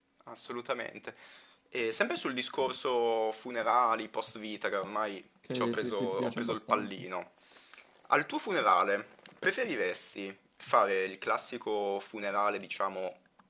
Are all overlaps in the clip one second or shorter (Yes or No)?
No